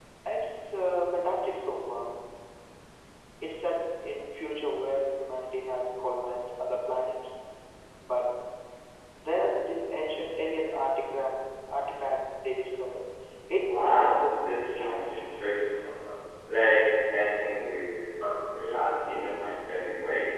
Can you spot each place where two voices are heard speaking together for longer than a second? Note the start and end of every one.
13.7-15.3

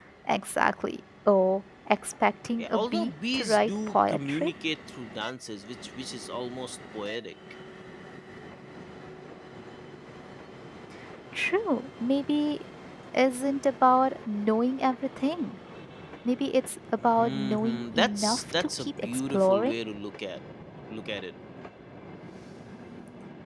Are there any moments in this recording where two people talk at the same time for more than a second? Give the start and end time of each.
2.6-4.5, 17.2-19.8

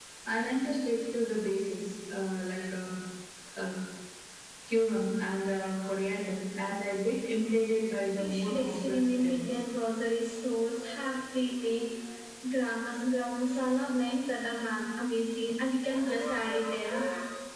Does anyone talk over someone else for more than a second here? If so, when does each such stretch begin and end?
8.2-9.4

